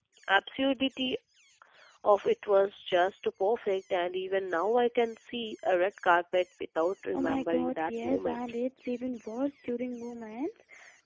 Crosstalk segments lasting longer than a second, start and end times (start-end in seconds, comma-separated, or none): 7.1-8.4